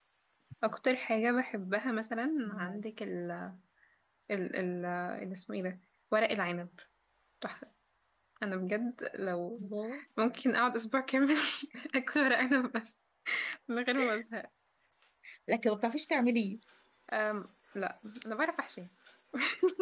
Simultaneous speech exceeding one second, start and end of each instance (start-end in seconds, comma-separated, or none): none